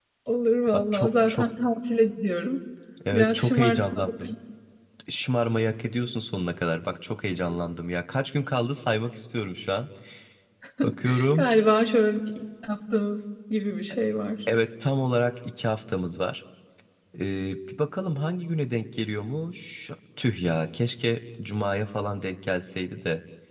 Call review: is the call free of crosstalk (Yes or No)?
No